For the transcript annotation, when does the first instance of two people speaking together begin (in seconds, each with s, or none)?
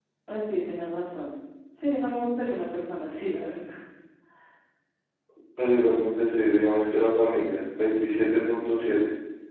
none